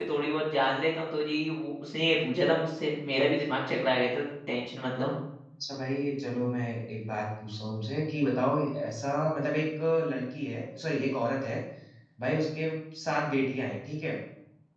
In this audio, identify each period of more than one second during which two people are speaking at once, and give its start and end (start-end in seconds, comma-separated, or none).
none